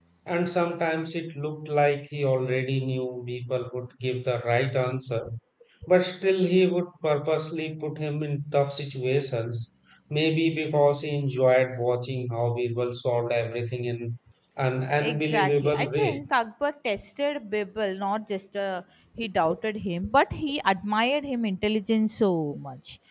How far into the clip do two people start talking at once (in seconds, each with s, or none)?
15.0 s